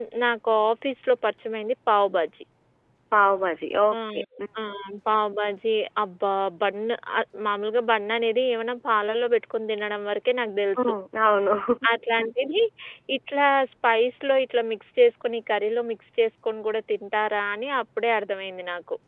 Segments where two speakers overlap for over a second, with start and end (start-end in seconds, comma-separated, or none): none